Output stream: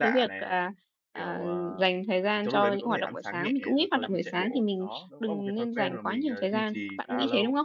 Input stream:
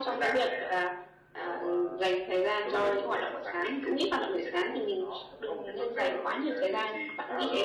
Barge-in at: none

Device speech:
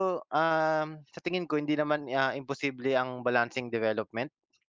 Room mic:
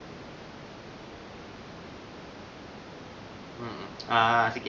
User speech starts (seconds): 4 s

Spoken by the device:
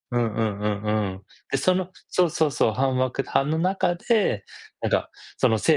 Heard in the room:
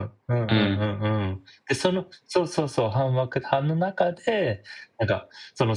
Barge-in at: 0 s

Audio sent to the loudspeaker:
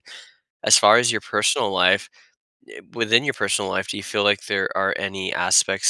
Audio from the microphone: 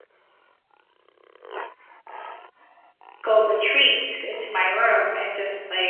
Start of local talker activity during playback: 3 s

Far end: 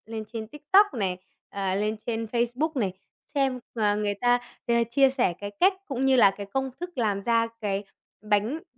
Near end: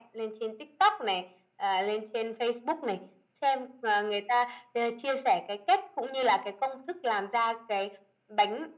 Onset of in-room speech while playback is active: none

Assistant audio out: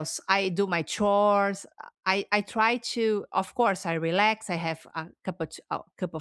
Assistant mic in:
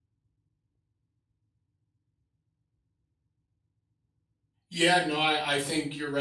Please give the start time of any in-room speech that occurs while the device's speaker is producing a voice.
5 s

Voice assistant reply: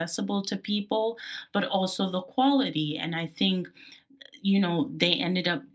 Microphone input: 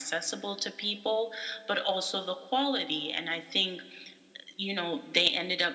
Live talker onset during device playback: none

